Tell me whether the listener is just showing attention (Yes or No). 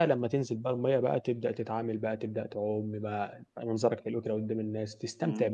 No